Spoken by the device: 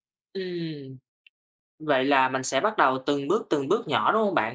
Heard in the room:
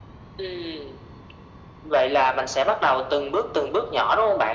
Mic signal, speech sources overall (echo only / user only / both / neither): echo only